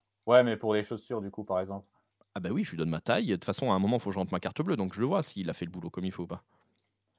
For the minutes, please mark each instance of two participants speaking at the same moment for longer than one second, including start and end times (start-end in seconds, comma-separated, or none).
none